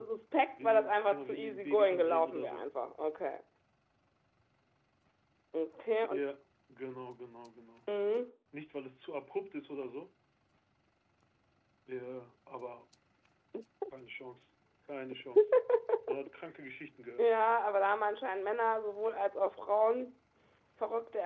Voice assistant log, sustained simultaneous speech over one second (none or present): present